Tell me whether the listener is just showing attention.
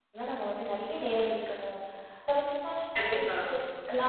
Yes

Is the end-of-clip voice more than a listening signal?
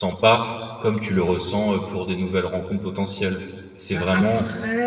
Yes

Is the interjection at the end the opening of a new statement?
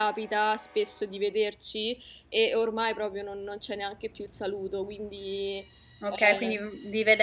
Yes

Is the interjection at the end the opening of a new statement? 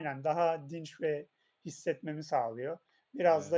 No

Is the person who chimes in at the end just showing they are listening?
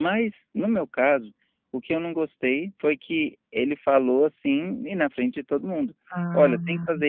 Yes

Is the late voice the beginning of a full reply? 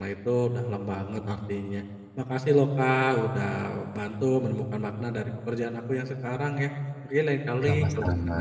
No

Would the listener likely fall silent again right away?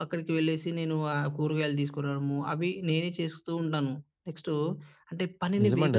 No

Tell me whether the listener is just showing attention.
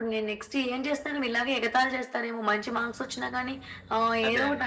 Yes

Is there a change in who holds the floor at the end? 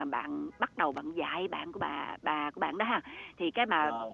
No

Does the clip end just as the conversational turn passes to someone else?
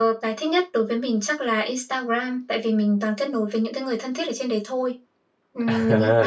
Yes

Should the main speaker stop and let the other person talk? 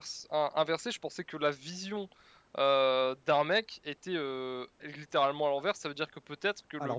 No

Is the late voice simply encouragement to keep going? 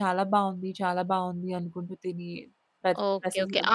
No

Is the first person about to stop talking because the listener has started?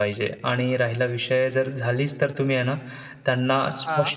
No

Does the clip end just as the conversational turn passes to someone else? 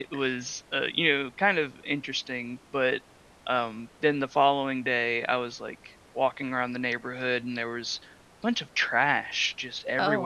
No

